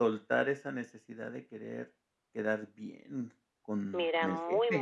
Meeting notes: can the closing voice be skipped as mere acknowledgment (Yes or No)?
No